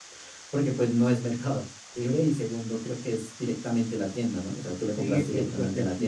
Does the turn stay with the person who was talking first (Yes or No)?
No